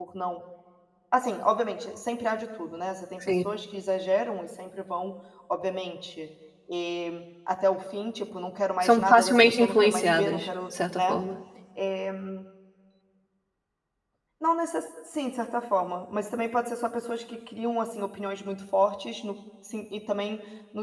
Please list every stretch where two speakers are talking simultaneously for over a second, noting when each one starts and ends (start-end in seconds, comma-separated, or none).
8.8-11.2